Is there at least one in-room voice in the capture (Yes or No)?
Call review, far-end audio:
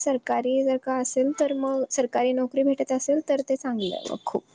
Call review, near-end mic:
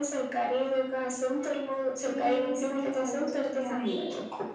Yes